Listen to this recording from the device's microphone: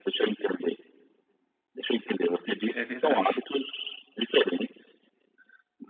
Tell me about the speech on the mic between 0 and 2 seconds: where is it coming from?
echo only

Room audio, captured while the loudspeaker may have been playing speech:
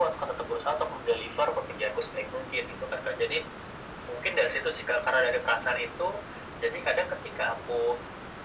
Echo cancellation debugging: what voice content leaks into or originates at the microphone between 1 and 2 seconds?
echo only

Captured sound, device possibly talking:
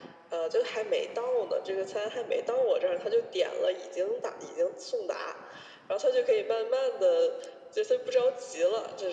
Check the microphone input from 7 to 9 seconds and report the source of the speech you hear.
echo only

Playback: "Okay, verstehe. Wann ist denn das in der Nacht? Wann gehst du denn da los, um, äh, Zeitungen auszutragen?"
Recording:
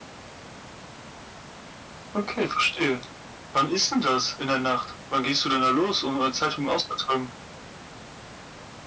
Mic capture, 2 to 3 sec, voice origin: echo only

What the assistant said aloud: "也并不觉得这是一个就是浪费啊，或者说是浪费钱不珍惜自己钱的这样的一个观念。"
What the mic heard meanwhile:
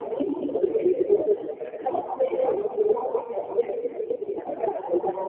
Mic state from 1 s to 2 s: echo only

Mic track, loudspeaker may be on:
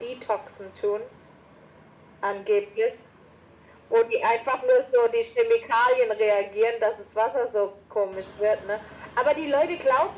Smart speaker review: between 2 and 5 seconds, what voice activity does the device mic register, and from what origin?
echo only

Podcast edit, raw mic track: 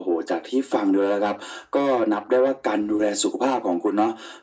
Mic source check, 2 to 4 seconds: echo only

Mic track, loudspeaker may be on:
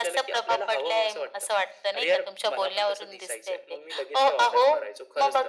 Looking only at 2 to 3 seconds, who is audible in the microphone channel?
echo only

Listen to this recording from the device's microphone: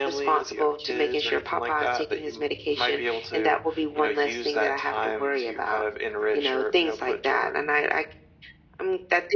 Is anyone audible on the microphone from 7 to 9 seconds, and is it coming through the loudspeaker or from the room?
echo only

